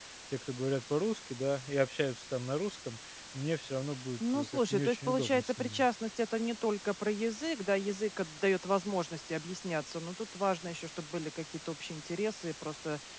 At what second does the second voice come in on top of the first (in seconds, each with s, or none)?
4.2 s